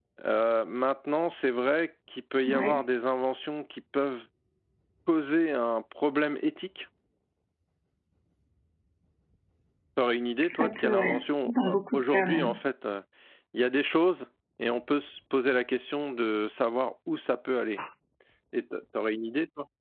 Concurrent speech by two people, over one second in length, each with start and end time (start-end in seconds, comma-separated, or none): 10.5-12.6